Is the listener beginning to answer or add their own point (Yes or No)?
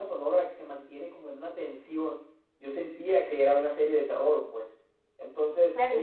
Yes